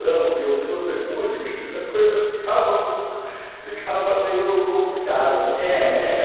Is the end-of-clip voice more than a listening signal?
Yes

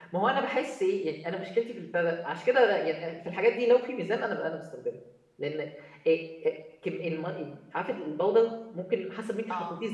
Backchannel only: Yes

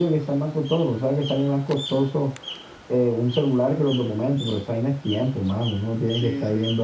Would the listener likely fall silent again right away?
Yes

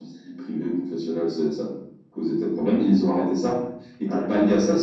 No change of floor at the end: Yes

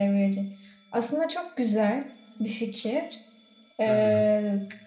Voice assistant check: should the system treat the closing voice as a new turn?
No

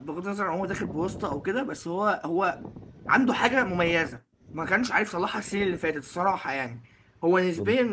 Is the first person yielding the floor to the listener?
No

